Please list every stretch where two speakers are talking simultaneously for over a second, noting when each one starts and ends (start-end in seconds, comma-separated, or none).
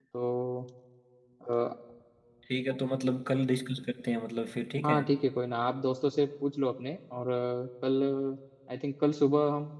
none